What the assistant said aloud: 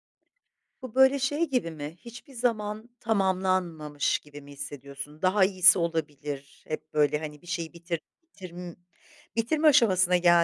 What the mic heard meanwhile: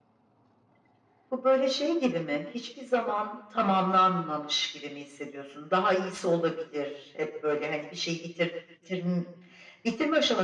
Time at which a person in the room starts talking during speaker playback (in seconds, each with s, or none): none